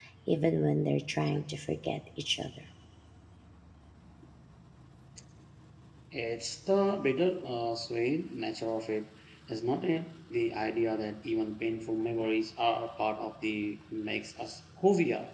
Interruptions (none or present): none